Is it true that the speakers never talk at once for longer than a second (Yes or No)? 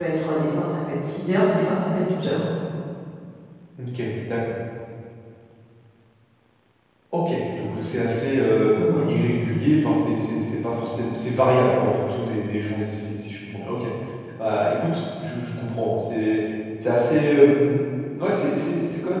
Yes